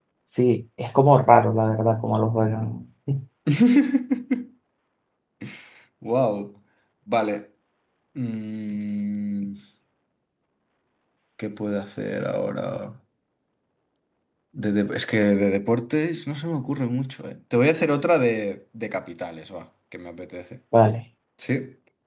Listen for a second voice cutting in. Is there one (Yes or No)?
No